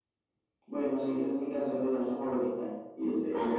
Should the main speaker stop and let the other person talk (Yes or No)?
Yes